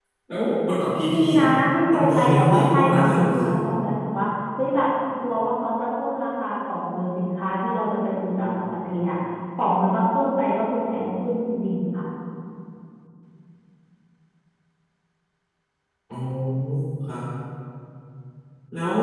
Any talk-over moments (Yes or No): Yes